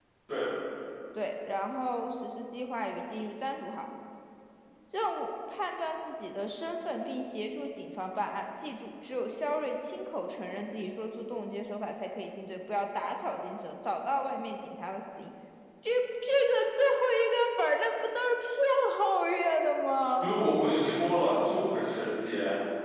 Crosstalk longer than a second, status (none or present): none